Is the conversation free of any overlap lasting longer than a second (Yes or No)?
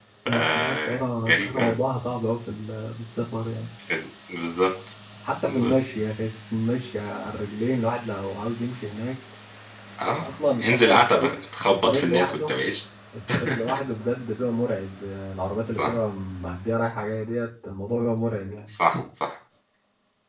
No